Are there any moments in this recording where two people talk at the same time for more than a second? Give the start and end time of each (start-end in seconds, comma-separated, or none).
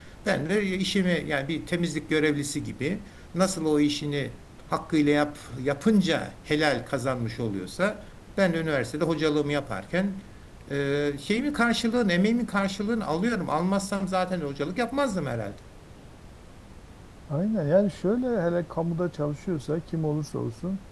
none